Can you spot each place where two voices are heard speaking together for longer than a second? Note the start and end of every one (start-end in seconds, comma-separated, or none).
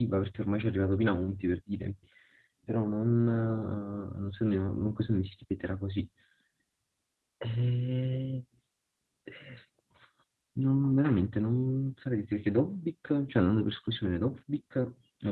none